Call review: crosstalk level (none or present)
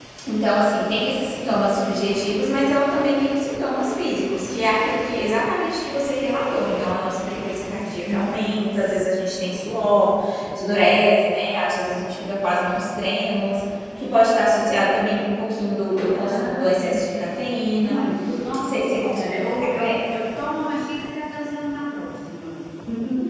present